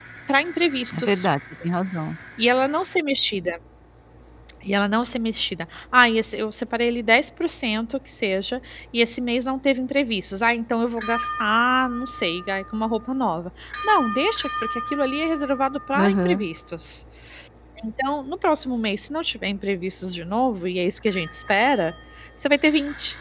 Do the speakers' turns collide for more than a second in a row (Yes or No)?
No